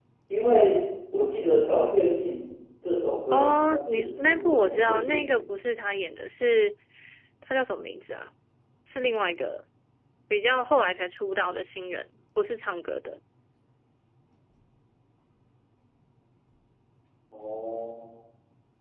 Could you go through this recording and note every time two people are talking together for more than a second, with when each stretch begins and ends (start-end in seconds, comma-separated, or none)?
3.3-5.3